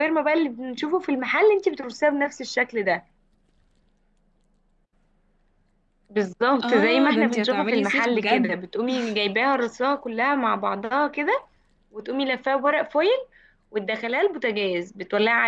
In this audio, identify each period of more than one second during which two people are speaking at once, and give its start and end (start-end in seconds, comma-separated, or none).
6.6-8.6